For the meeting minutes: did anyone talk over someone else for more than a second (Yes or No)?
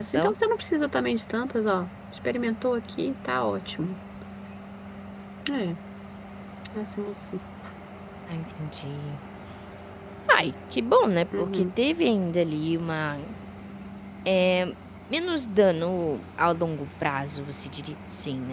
No